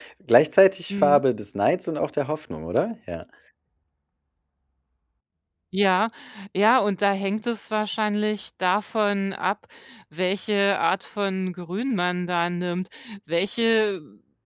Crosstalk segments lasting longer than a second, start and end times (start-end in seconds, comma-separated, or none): none